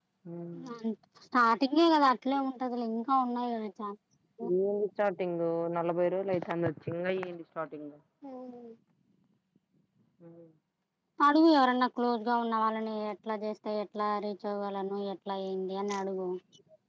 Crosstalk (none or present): none